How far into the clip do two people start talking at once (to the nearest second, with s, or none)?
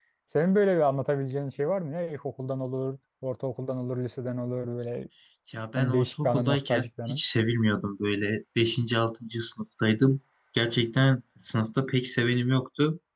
6 s